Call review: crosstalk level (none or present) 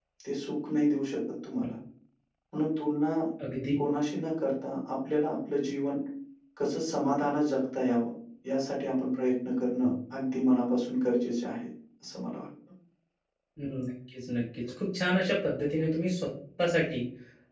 none